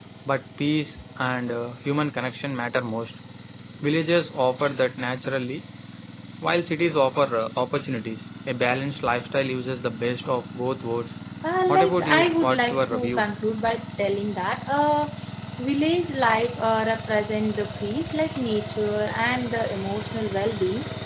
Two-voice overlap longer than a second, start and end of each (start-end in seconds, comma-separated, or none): 11.7-13.2